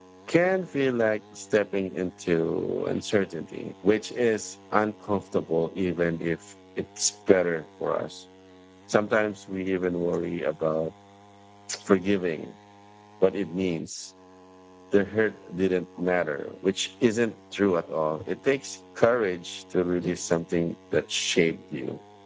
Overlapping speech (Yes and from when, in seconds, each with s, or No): No